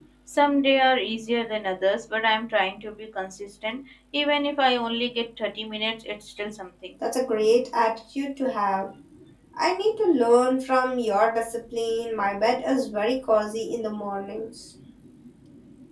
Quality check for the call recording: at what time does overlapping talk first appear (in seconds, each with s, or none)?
none